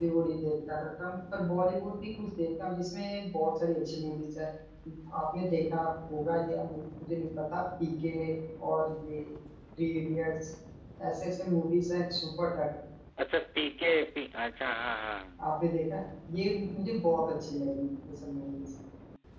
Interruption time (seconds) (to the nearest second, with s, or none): none